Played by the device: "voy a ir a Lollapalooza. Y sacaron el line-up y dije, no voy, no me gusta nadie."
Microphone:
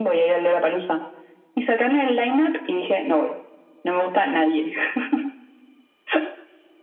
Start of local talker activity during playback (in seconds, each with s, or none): none